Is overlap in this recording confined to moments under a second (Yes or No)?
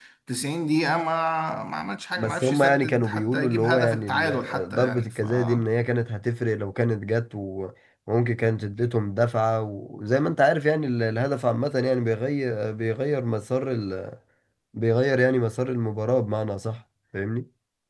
No